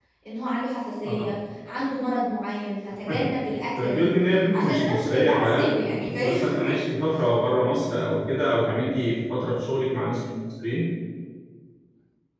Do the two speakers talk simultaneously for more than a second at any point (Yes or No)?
Yes